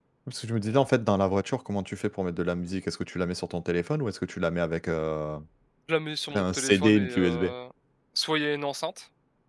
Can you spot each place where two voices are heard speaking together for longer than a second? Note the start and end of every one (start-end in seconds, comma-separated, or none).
6.3-7.5